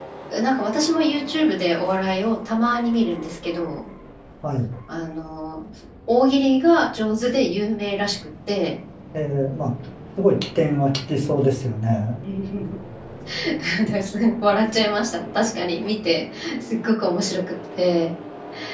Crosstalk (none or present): none